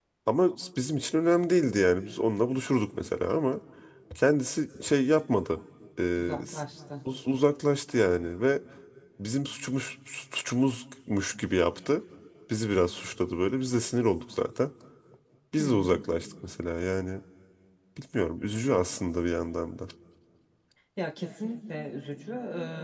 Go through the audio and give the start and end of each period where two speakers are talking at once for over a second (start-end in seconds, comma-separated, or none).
none